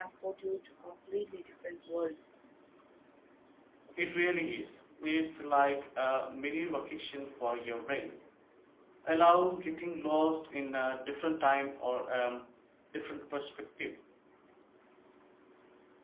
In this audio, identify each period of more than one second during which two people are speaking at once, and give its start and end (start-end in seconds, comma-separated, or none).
none